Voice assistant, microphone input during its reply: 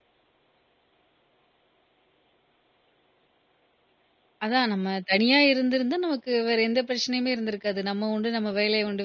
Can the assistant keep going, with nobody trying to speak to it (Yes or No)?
No